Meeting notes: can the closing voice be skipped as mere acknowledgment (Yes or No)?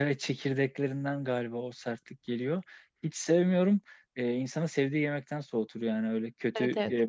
No